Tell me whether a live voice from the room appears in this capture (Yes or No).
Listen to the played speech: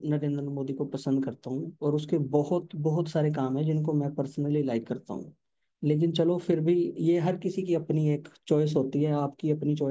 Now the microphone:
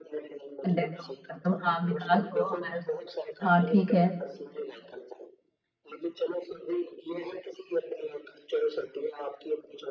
Yes